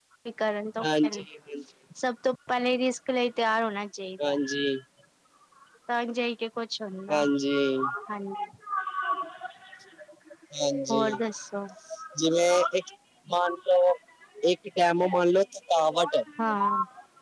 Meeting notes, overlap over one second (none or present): none